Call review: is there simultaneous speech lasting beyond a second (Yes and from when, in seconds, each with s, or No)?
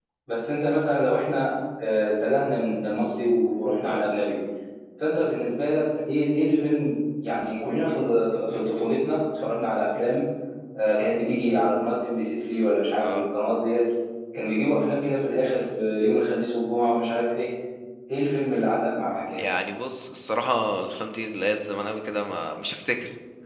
No